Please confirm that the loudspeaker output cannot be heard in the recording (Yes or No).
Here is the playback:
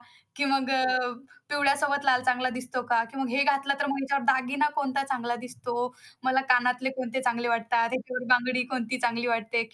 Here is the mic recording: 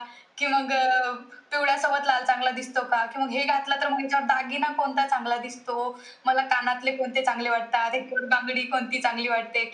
No